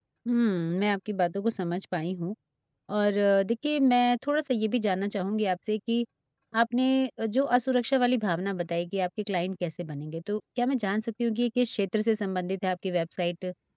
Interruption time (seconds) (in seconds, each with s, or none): none